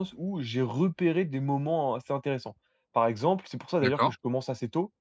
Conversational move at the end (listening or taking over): listening